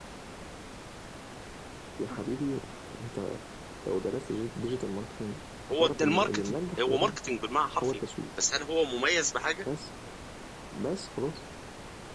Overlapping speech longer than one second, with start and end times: 5.7-7.2

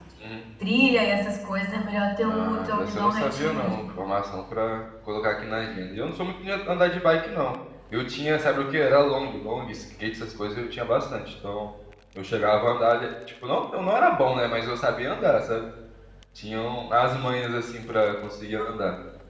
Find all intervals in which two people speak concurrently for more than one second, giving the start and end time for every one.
2.2-3.8

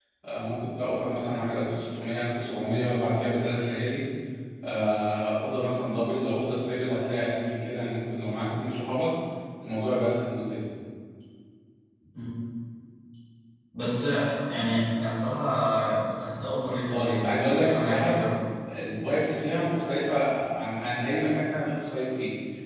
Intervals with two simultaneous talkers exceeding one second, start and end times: 16.8-18.2

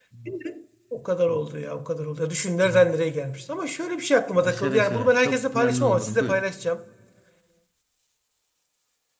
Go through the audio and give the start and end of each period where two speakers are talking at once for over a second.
4.5-6.4

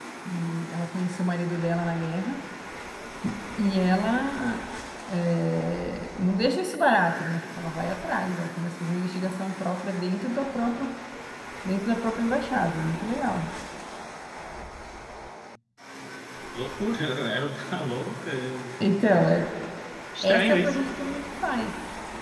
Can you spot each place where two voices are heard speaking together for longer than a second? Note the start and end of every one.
none

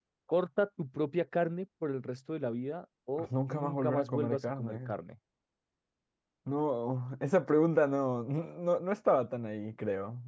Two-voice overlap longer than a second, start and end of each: 3.5-5.0

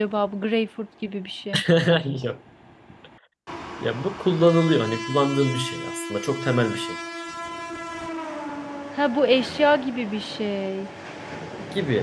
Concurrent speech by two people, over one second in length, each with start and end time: none

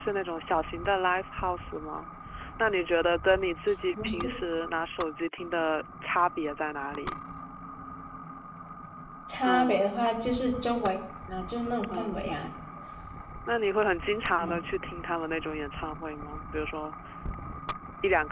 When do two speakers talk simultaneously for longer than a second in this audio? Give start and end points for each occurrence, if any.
none

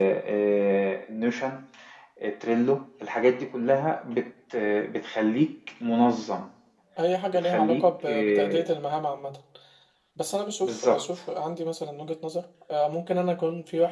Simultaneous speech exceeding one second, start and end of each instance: 7.3-8.7

